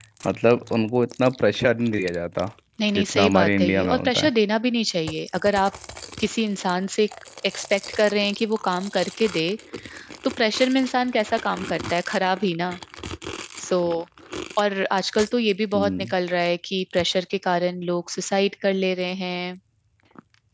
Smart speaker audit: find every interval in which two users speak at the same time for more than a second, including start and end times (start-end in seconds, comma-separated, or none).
3.0-4.3